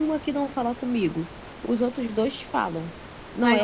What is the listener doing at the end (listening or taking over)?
listening